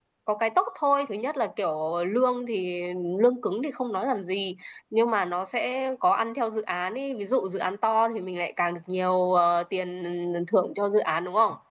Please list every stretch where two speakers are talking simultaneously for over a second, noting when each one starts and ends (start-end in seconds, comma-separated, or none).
none